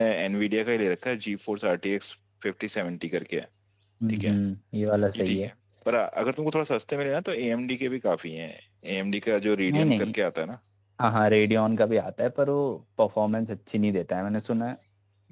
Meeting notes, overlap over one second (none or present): none